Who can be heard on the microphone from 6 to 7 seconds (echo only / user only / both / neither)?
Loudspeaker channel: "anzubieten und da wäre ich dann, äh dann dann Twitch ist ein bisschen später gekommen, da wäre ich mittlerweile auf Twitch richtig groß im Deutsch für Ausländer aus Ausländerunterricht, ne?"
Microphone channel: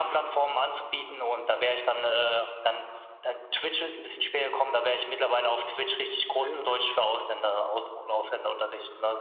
both